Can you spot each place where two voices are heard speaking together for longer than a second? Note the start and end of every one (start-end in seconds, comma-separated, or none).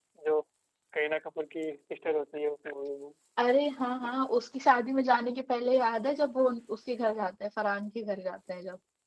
none